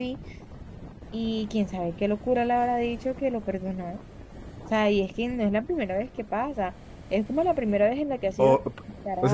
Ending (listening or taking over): taking over